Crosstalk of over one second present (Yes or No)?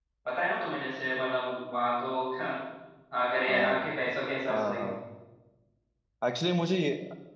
No